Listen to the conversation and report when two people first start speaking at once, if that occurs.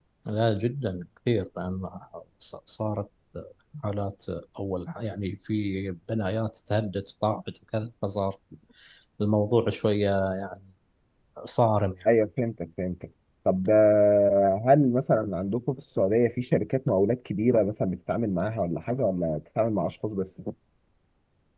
none

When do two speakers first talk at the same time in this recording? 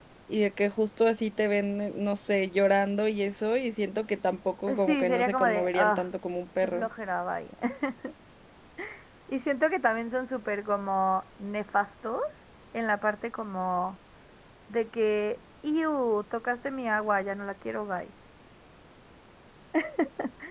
4.7 s

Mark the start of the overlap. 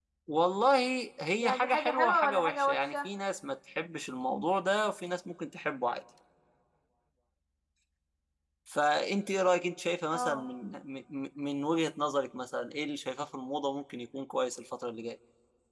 1.4 s

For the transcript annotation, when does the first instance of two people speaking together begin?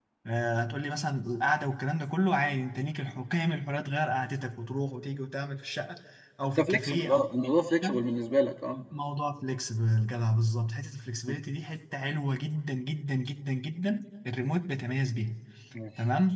6.6 s

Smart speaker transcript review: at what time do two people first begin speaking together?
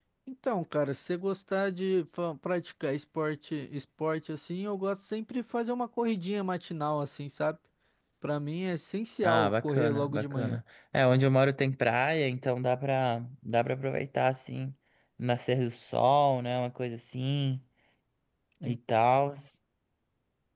9.2 s

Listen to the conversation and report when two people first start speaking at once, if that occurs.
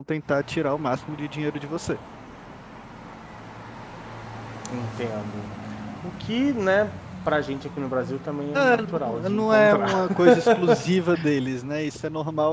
8.5 s

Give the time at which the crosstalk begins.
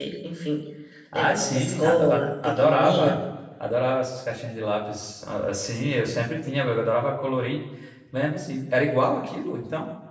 1.1 s

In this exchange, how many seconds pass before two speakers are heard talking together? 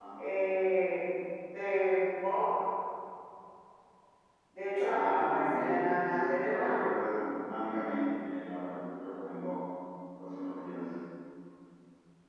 4.8 s

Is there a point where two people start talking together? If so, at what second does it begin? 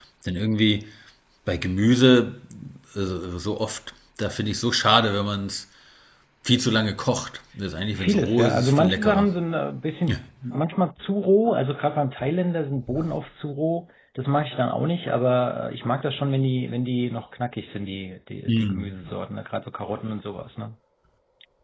7.9 s

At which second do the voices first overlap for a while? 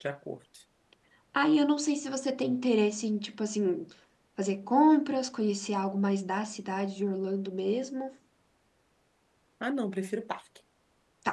none

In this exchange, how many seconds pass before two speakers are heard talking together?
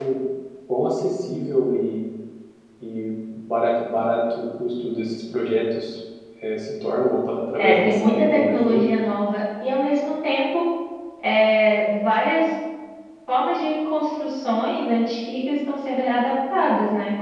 7.5 s

